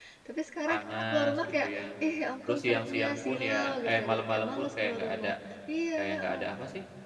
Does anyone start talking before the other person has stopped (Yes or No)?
Yes